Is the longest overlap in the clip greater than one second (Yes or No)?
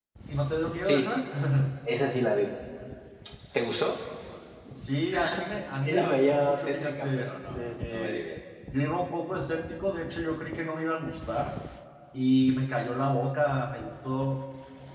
Yes